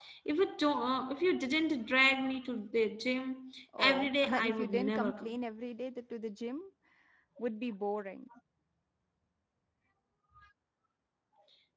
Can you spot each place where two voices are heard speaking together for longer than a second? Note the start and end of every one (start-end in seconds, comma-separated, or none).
3.8-5.3